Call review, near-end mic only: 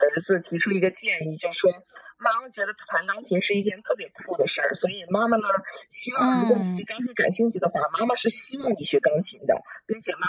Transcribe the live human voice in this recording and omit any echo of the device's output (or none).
嗯。